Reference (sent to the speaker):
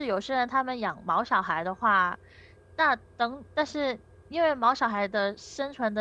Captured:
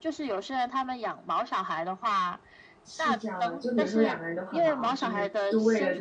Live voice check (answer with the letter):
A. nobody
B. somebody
B